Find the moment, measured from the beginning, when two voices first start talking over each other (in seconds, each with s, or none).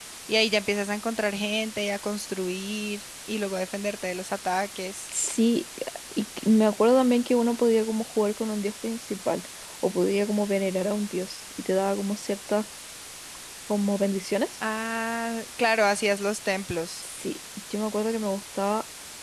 none